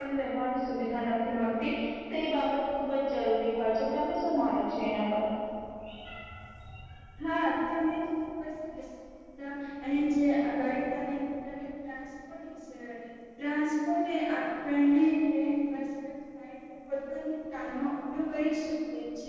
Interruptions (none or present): none